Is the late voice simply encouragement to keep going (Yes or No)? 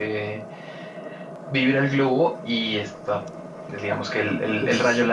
Yes